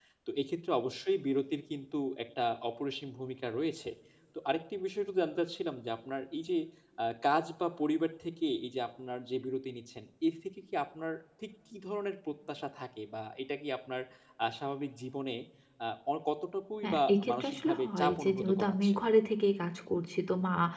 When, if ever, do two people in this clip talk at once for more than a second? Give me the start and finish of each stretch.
16.8-18.9

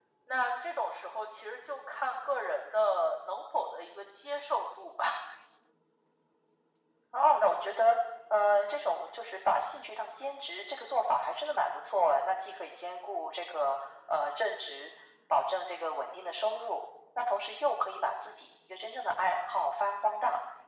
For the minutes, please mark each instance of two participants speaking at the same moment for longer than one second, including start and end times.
none

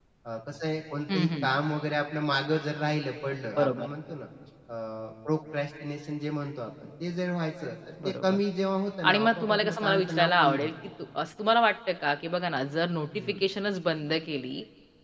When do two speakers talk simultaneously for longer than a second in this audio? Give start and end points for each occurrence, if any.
9.0-10.7

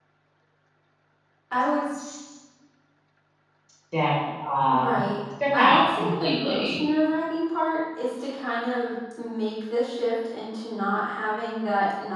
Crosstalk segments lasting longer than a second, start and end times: 5.5-6.8

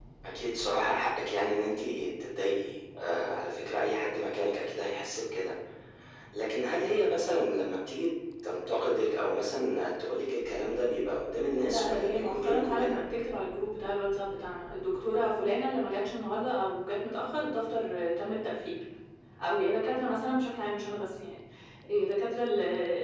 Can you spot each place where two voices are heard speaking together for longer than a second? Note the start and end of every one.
11.6-13.0

